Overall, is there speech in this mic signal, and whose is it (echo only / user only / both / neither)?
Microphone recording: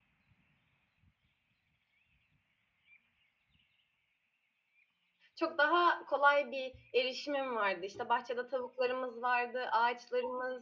user only